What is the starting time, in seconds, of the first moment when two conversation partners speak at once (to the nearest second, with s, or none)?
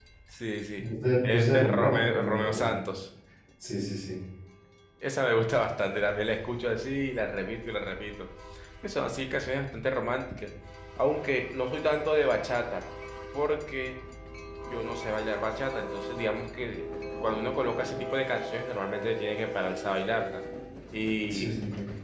1 s